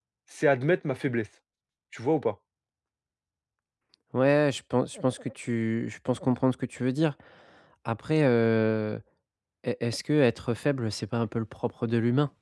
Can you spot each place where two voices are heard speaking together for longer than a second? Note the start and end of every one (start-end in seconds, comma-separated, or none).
none